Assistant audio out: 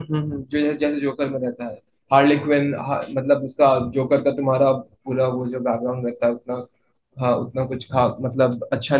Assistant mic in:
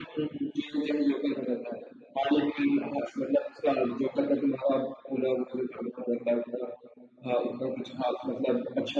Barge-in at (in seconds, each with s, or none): none